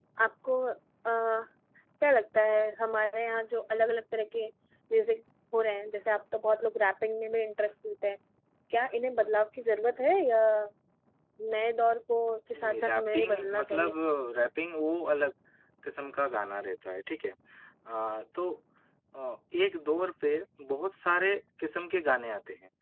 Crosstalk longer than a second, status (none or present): present